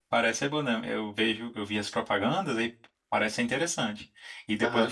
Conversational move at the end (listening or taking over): listening